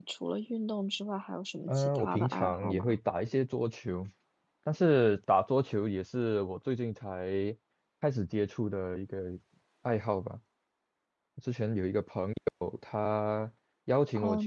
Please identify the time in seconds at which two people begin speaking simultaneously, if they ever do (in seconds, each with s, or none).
1.7 s